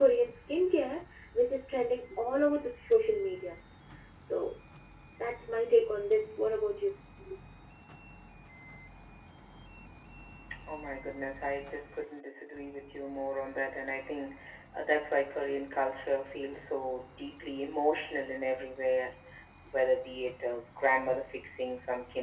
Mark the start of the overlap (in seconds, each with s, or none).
none